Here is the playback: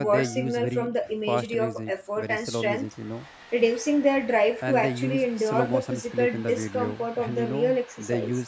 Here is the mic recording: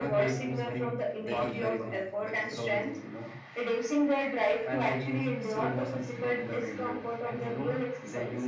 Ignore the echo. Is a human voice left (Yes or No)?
Yes